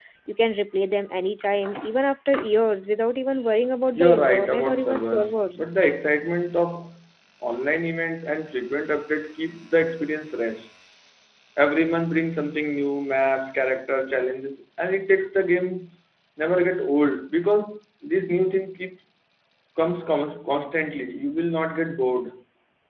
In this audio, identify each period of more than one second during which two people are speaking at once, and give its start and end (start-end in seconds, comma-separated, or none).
4.0-5.8